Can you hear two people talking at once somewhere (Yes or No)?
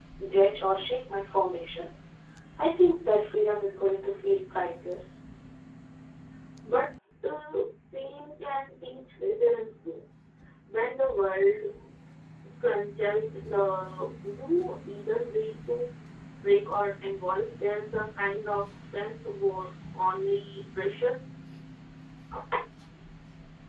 No